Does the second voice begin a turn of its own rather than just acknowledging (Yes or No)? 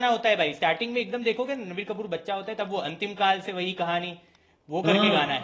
Yes